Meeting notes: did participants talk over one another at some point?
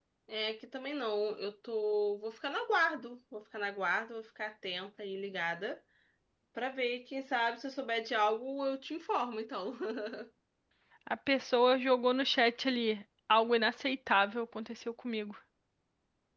No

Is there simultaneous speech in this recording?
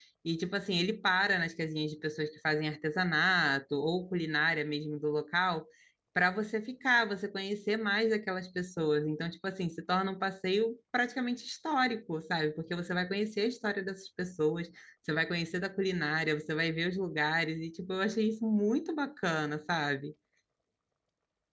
No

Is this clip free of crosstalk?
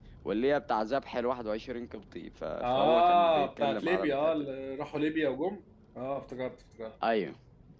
No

